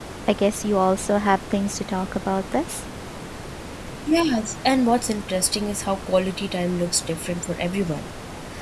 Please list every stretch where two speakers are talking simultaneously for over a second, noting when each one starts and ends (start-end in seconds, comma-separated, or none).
none